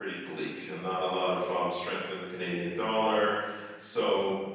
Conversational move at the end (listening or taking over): listening